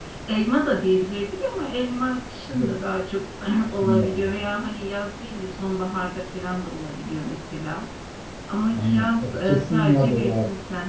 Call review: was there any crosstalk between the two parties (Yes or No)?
Yes